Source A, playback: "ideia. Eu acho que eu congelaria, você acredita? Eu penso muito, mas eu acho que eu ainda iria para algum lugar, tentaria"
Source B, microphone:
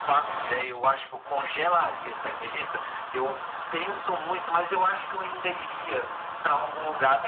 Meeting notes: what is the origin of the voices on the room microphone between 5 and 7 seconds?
echo only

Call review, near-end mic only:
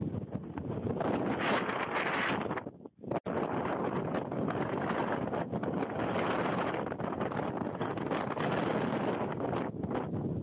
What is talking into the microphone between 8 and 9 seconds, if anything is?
neither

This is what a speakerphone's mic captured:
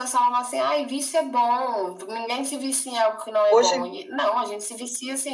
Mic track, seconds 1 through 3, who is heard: echo only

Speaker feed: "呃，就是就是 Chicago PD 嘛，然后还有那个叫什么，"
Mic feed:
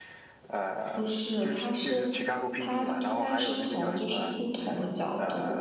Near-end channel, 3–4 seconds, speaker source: both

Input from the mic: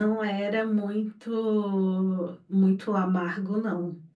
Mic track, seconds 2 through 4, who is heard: user only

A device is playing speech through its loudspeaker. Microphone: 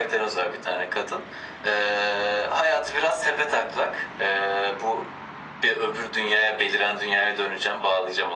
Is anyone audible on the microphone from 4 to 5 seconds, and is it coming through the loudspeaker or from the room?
echo only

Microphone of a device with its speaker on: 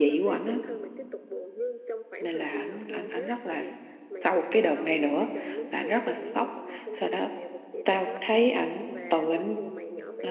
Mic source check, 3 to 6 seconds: both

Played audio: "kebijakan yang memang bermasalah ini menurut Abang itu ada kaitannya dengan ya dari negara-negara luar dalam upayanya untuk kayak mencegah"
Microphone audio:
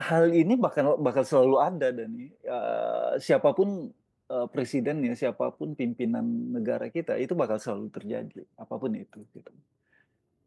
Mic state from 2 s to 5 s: user only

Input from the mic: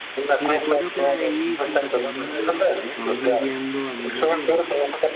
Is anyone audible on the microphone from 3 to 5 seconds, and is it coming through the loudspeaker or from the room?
both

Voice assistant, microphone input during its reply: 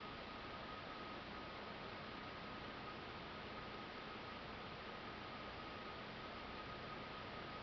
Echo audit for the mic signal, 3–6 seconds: neither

